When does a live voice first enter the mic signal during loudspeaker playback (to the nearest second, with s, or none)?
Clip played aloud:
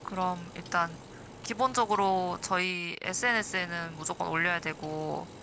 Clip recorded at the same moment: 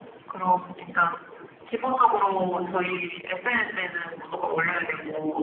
2 s